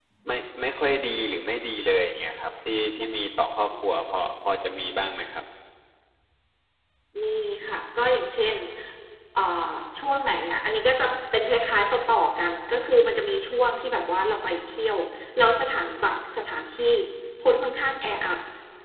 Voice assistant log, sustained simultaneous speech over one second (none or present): none